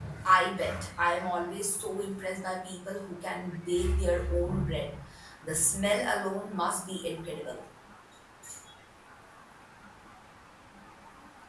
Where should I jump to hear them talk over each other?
none

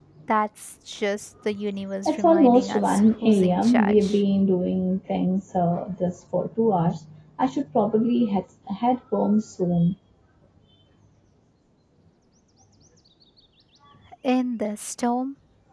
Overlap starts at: 2.0 s

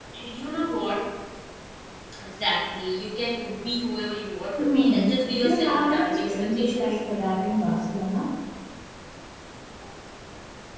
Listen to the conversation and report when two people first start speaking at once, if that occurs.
4.6 s

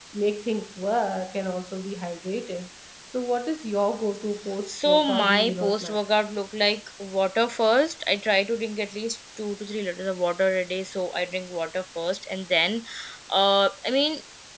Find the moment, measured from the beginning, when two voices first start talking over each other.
4.7 s

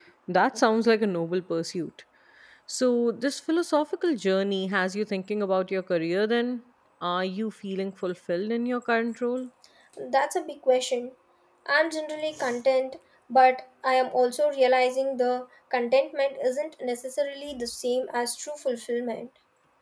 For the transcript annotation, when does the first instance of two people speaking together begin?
none

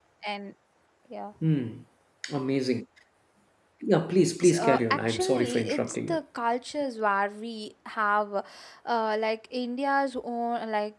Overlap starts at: 4.4 s

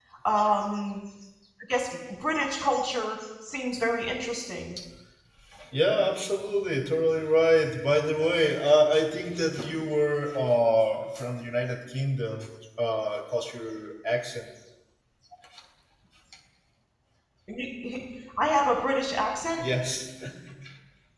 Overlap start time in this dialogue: none

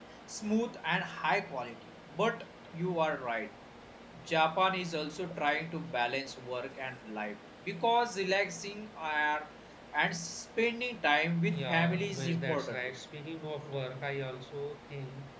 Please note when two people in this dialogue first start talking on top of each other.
11.5 s

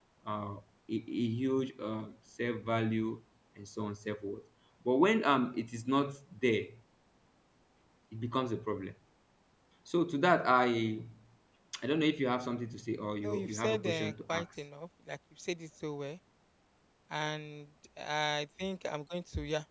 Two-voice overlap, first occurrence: 13.2 s

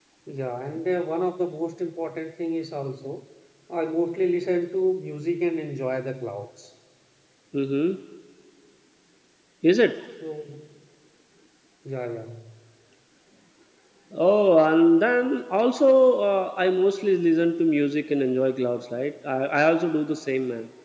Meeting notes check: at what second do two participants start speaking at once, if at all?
none

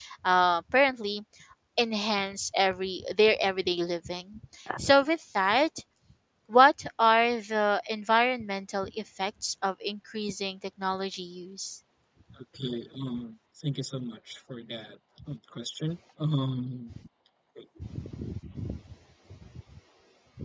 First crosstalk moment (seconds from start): none

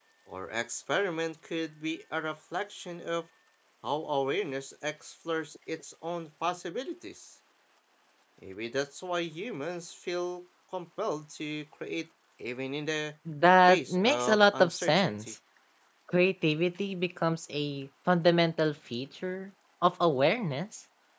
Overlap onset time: 13.7 s

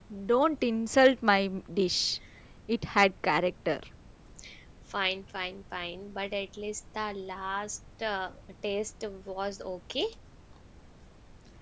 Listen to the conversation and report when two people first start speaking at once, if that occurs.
none

